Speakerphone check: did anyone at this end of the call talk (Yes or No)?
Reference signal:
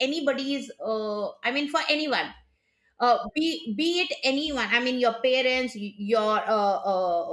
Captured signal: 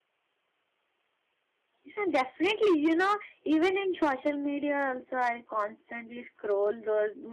Yes